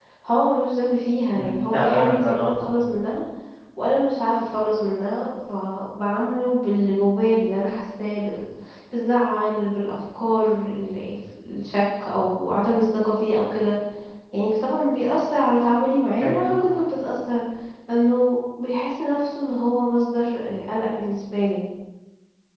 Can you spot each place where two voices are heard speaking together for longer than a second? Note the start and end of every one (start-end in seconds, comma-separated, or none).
1.3-2.7